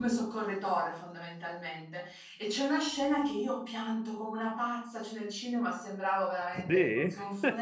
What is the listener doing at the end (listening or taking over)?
listening